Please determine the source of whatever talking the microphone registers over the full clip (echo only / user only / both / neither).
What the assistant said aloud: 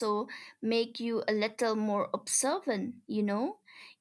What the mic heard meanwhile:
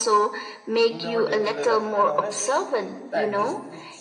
both